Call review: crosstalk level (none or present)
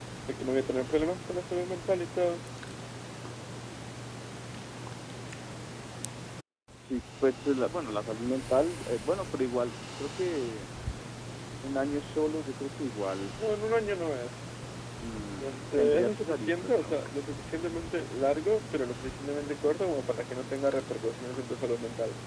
present